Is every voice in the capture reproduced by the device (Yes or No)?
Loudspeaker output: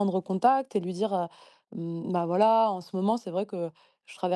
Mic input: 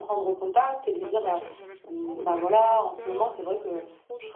No